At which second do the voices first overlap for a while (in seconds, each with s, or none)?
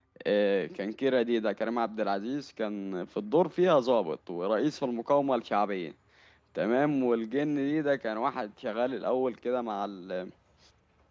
none